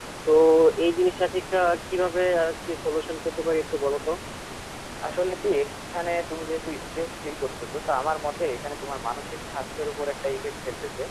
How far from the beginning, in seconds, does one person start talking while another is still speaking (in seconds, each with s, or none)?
none